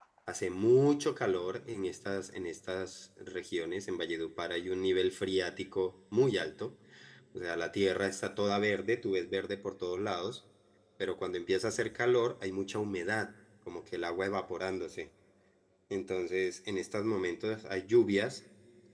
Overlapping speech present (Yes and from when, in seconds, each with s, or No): No